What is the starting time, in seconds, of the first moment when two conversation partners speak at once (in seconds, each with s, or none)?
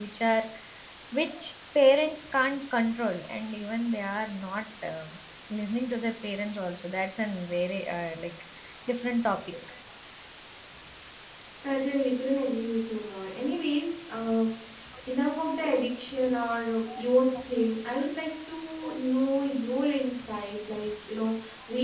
none